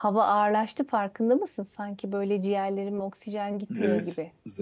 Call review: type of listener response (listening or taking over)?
taking over